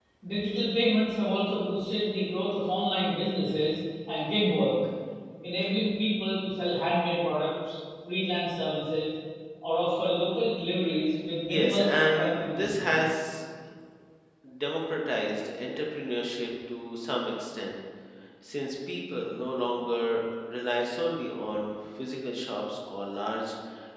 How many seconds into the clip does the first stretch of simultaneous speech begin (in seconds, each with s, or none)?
11.5 s